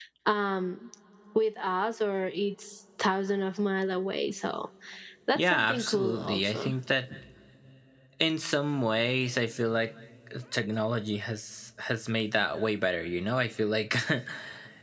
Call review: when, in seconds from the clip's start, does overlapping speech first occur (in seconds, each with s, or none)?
5.3 s